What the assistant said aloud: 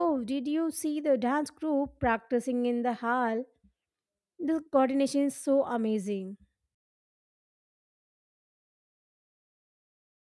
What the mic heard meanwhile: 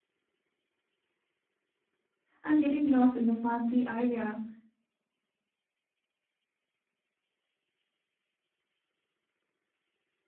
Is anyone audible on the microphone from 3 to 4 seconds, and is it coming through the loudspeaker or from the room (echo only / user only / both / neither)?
user only